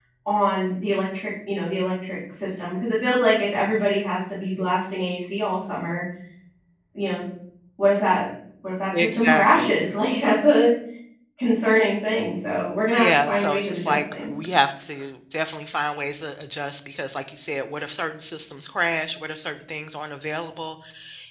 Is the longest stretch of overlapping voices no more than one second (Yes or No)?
No